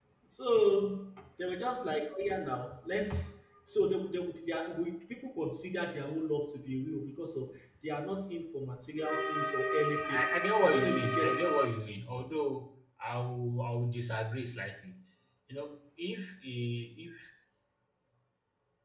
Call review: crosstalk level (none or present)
present